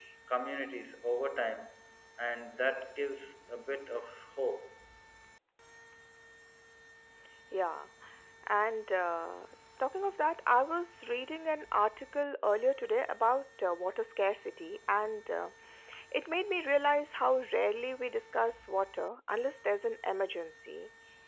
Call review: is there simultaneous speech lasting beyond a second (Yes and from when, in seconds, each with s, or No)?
No